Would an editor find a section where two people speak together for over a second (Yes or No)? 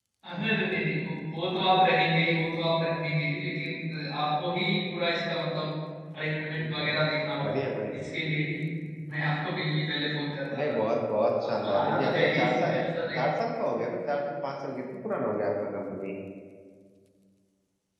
Yes